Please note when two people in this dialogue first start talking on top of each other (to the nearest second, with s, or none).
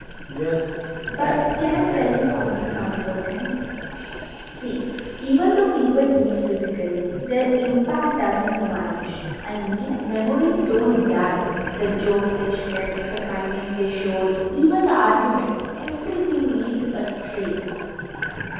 1 s